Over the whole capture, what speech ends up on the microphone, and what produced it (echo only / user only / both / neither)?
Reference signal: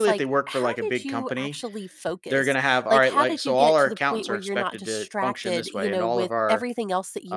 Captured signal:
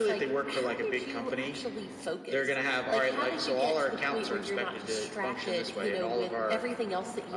echo only